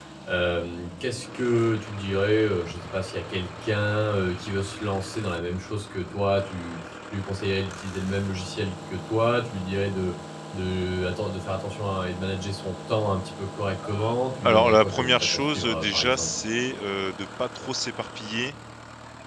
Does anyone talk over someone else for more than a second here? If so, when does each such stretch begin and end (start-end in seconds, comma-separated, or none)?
14.4-16.3